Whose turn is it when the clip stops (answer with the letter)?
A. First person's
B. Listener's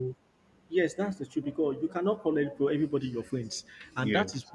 A